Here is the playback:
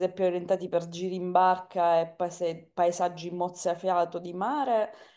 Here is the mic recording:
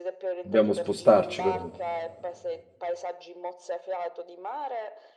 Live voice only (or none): dobbiamo spostarci però.